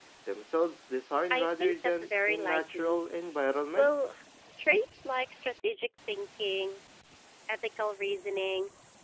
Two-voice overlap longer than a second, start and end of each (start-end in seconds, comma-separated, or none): 1.3-3.0